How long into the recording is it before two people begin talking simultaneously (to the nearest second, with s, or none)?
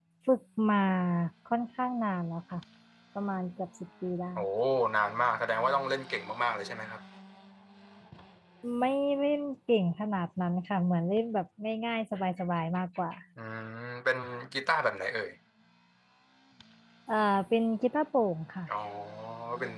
none